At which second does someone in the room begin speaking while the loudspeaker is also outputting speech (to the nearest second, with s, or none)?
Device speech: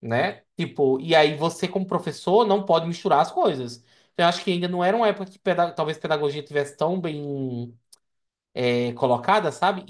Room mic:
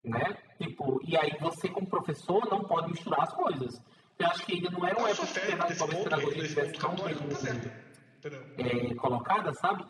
5 s